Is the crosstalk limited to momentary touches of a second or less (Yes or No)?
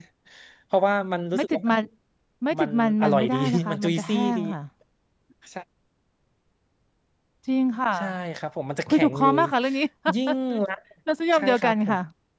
No